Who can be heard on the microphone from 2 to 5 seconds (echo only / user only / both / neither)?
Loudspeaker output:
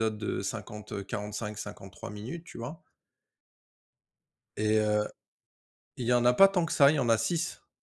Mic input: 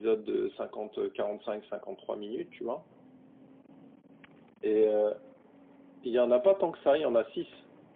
echo only